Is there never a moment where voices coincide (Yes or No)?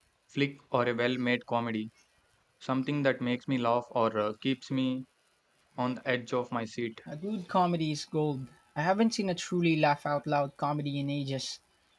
Yes